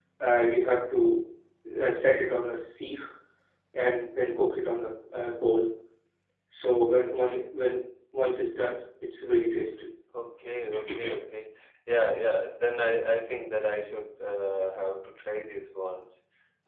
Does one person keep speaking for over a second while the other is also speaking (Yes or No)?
No